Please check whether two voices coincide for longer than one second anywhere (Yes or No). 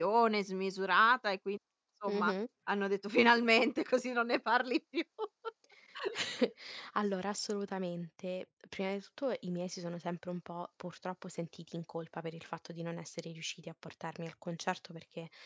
No